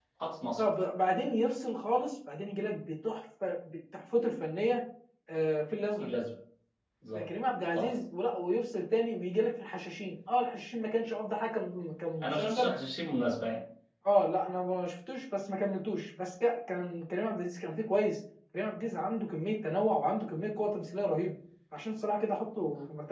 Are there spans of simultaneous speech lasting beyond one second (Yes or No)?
No